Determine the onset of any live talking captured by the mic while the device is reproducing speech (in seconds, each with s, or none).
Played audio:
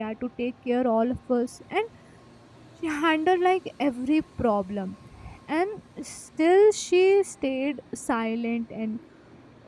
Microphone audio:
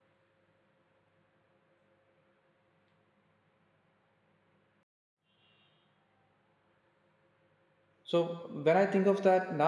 8.0 s